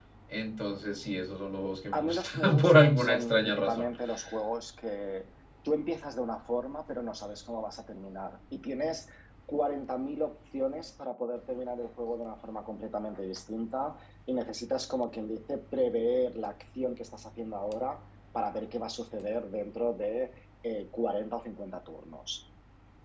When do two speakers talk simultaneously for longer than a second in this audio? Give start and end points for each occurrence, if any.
1.9-3.9

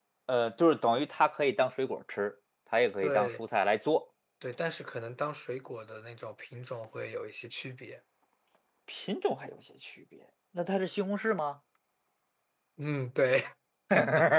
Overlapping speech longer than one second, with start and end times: none

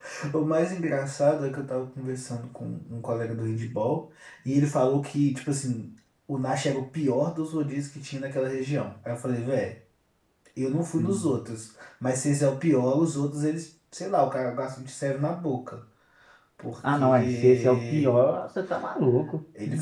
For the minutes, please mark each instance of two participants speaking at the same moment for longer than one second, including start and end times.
16.9-18.2

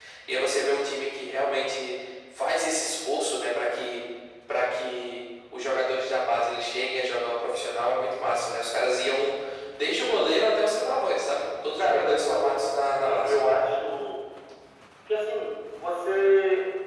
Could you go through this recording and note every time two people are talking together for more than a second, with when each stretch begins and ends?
11.8-13.4

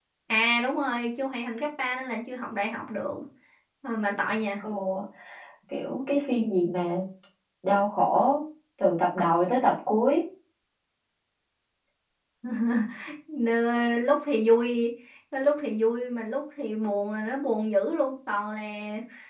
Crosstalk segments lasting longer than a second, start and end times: none

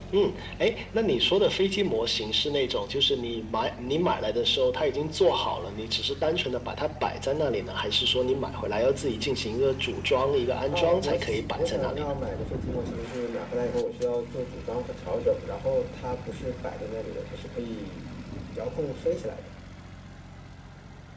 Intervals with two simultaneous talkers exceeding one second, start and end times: 10.7-12.1

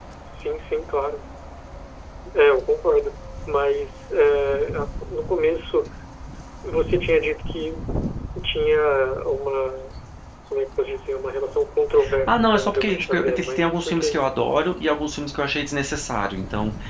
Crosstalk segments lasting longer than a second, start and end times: 12.3-14.3

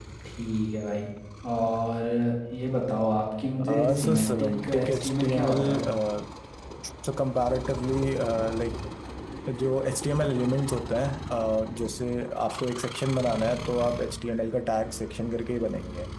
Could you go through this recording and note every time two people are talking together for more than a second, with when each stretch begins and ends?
3.7-5.6

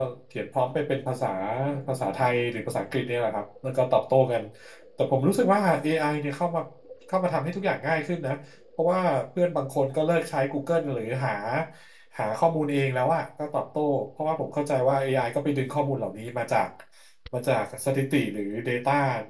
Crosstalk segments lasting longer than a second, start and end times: none

